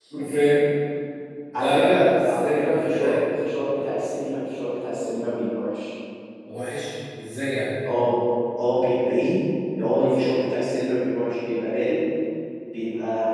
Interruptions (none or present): present